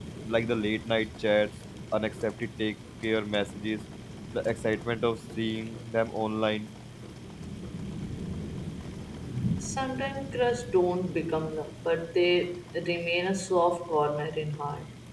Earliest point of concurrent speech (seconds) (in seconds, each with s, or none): none